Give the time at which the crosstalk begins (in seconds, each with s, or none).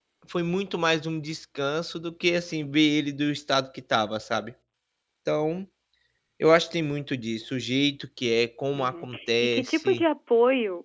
8.7 s